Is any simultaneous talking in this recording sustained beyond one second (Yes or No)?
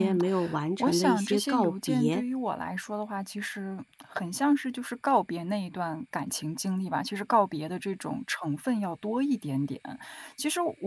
Yes